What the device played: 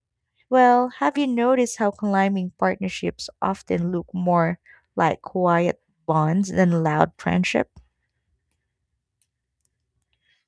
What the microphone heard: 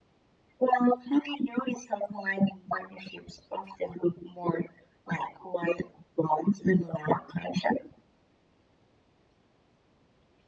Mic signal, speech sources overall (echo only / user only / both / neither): echo only